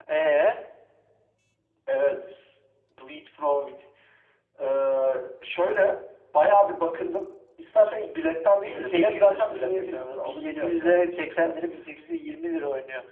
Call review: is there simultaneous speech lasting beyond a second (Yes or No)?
Yes